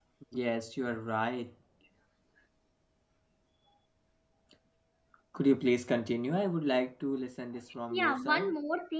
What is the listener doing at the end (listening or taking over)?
taking over